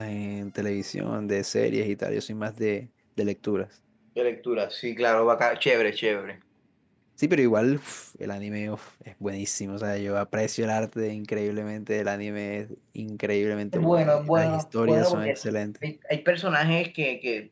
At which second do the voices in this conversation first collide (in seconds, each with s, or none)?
13.7 s